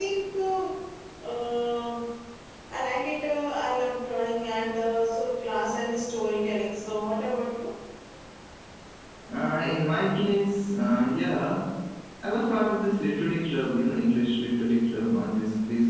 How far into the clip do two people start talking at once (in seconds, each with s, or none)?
none